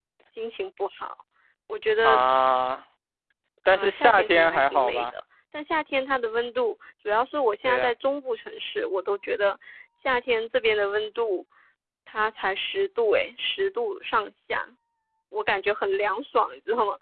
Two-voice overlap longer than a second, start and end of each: 3.8-5.0

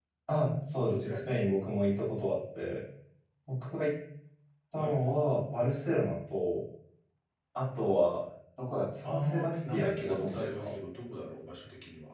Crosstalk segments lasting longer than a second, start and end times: 9.0-10.7

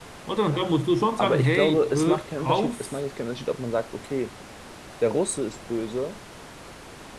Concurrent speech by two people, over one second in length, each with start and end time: 1.2-3.0

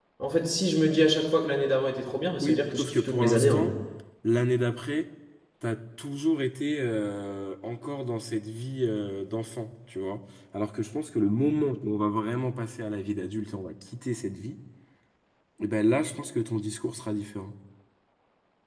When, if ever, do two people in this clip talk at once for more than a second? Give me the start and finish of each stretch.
2.4-3.7

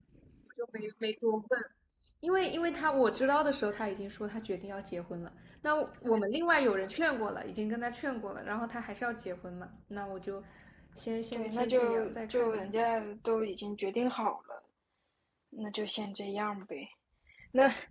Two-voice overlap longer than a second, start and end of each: 11.3-12.7

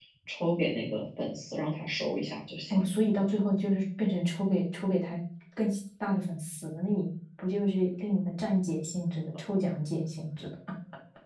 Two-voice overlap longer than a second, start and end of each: none

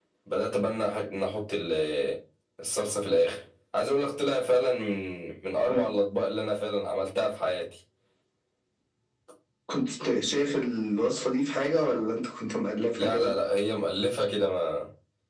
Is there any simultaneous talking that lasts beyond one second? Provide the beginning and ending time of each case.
none

